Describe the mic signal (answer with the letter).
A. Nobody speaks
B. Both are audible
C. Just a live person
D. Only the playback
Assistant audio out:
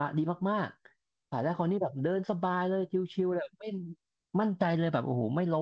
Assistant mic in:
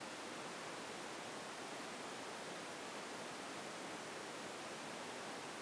A